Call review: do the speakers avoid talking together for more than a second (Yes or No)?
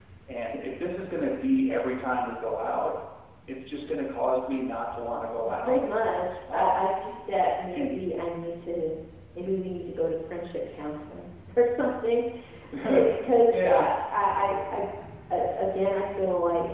Yes